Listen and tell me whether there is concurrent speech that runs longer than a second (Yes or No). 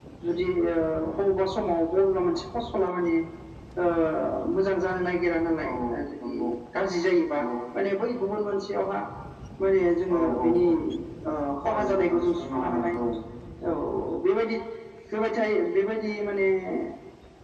Yes